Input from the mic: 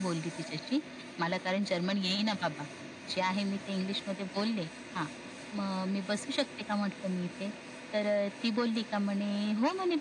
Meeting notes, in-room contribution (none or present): none